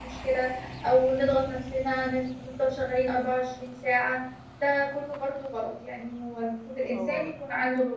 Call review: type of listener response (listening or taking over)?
listening